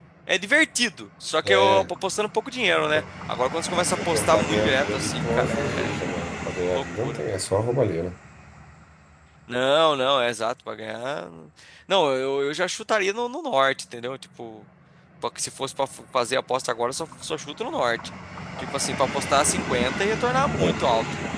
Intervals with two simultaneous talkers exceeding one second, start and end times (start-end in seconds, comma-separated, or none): 4.0-6.0